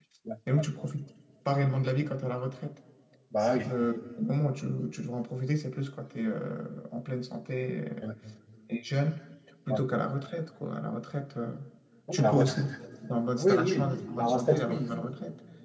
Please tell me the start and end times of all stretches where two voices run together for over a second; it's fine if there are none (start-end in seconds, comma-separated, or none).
13.3-15.0